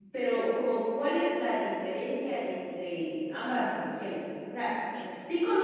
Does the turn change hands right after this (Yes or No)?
No